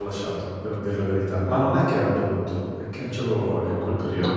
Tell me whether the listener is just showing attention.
No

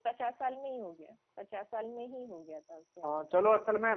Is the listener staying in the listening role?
No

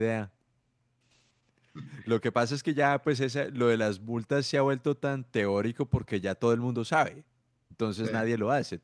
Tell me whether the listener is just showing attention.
Yes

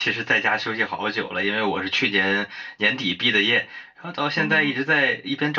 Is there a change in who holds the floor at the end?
No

